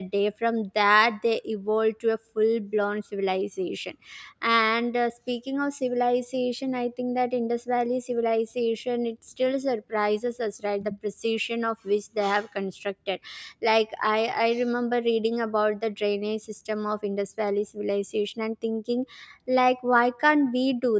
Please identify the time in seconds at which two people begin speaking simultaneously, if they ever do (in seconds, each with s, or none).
none